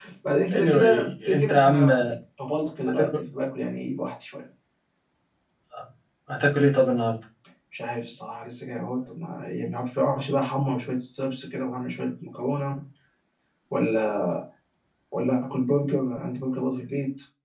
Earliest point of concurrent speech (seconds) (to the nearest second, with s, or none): 1 s